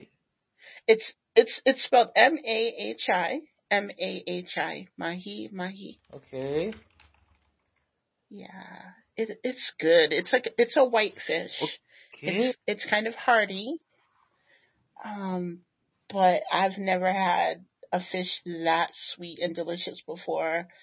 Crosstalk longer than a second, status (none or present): none